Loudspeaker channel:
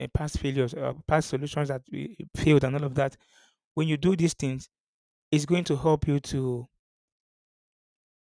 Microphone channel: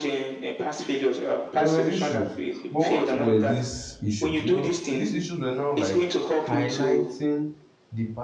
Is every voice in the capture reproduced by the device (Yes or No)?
No